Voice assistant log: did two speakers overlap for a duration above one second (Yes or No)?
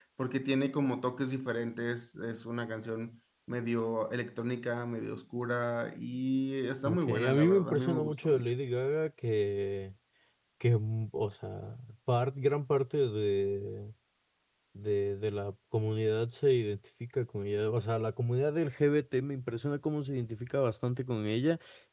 Yes